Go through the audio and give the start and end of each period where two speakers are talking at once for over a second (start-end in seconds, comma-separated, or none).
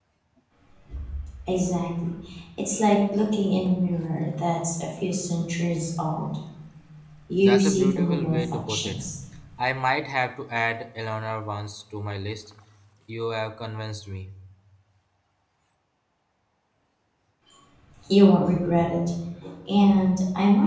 7.4-9.0